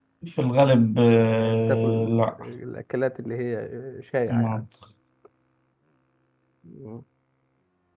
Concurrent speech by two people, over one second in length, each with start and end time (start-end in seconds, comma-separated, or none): 1.2-2.4